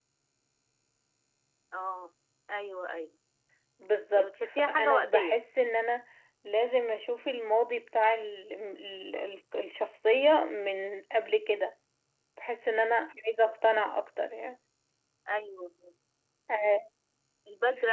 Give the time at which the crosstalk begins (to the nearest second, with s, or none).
4 s